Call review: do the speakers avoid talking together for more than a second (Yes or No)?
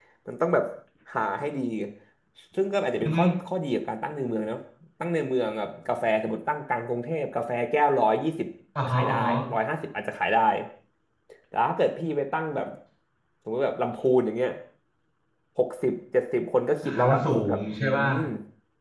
No